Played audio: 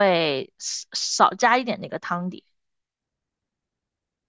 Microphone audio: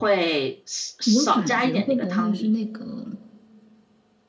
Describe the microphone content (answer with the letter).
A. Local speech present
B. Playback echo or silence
A